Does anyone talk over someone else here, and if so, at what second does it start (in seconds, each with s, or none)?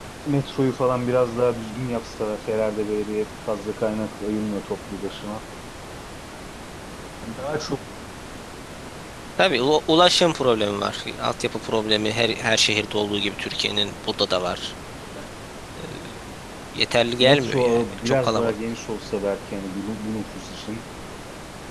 17.2 s